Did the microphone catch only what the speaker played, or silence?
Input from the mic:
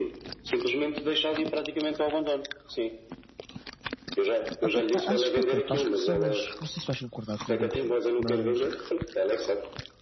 No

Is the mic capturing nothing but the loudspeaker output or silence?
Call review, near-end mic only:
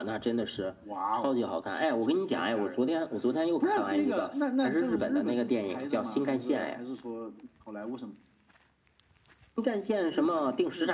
Yes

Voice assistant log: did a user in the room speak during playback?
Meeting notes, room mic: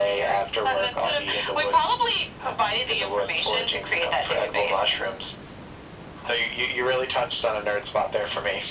No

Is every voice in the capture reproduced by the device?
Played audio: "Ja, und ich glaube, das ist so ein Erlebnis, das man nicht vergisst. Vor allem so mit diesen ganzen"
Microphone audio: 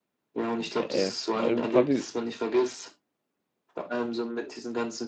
No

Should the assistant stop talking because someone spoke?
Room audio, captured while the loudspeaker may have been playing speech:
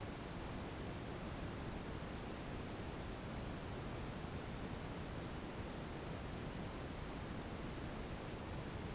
No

